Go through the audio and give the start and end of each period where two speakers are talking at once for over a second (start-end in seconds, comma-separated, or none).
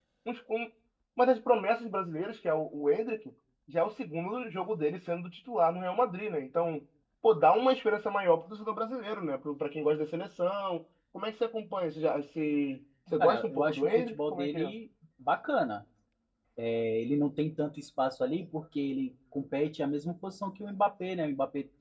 13.2-14.7